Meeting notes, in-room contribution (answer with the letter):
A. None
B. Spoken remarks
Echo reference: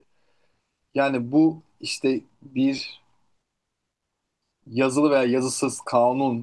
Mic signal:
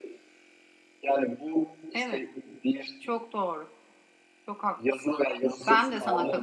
B